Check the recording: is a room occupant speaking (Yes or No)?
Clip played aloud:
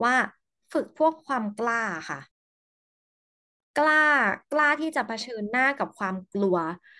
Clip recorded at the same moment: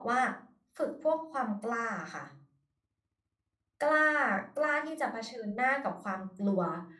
No